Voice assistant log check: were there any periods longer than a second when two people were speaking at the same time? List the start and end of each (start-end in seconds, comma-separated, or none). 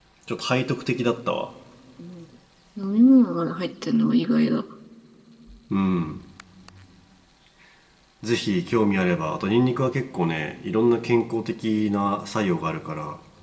none